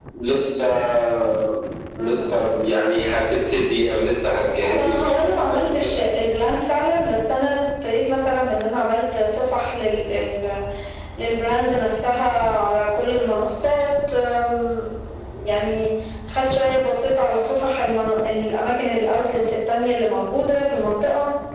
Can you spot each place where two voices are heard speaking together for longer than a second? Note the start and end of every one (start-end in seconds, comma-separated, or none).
4.6-6.0